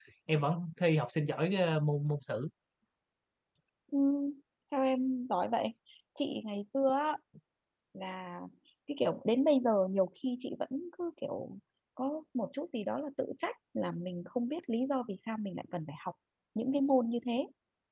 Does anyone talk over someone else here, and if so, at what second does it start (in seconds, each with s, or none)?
none